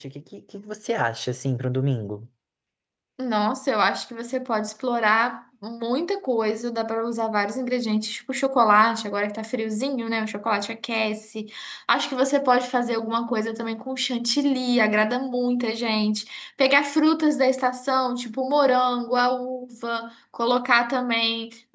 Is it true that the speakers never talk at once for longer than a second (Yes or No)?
Yes